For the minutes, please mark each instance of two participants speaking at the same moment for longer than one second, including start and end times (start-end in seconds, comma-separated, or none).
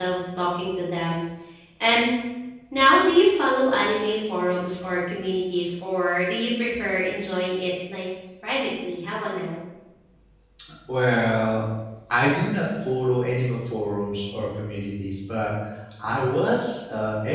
none